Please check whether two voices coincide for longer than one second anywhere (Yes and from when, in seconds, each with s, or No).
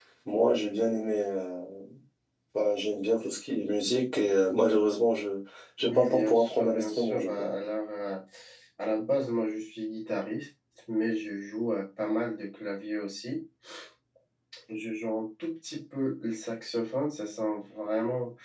Yes, from 5.8 s